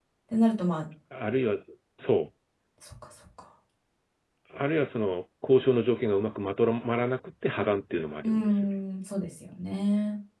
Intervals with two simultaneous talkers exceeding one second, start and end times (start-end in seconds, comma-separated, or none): none